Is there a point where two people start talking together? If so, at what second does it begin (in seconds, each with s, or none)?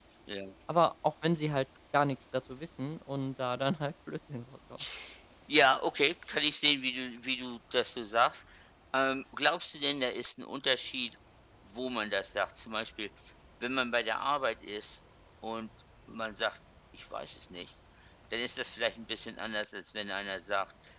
none